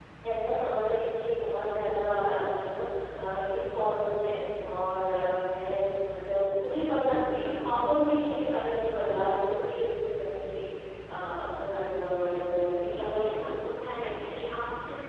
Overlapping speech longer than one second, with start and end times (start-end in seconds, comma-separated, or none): 12.9-14.4